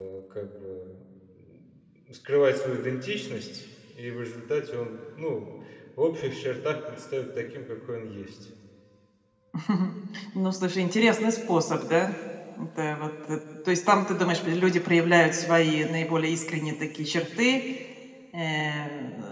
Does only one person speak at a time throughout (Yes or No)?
Yes